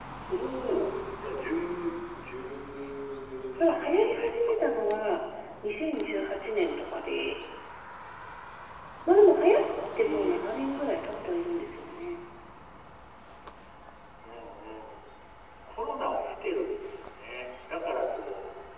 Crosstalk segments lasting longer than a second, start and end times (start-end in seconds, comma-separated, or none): 3.7-5.1